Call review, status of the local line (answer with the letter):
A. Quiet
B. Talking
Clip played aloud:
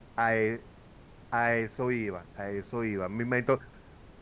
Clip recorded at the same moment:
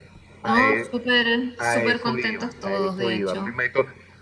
B